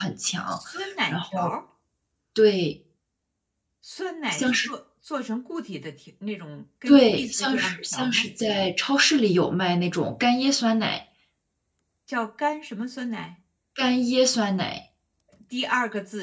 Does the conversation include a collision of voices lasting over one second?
Yes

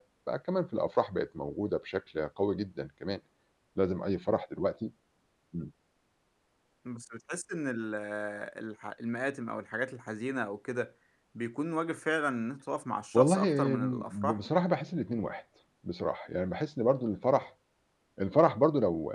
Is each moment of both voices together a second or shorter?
No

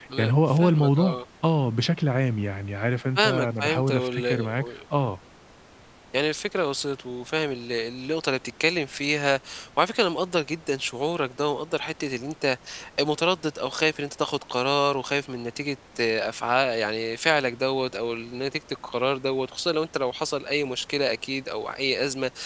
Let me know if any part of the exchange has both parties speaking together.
Yes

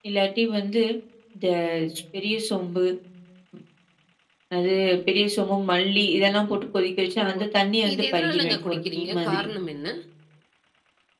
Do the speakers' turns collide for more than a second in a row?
Yes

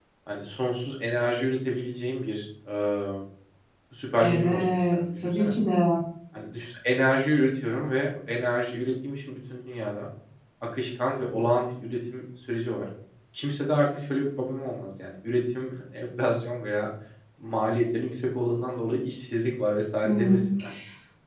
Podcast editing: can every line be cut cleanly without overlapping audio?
No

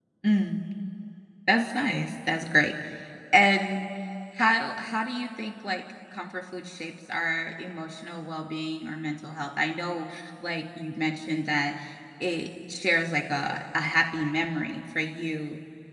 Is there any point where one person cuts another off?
No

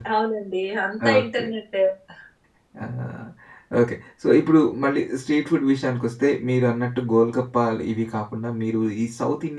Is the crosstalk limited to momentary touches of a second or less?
Yes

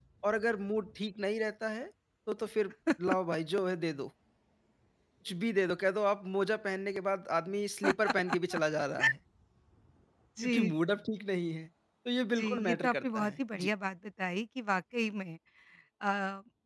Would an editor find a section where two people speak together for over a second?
Yes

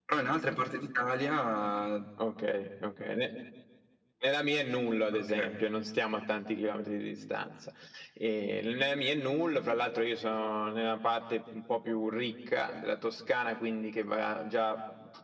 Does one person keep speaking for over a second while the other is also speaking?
No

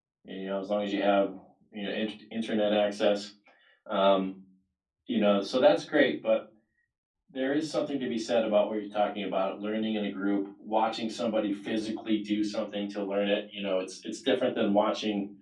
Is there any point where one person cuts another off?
No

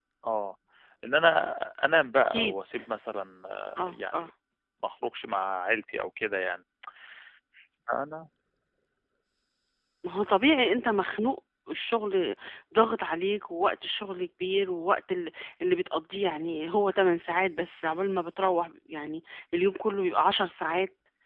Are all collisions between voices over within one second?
Yes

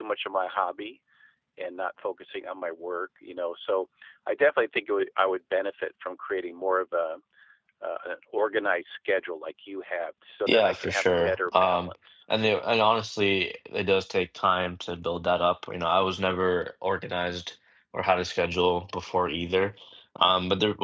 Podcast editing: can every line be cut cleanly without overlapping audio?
No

